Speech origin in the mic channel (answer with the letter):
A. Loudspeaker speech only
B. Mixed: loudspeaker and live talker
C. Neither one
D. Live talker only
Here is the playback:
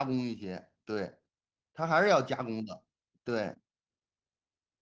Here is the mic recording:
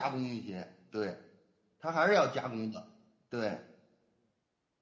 A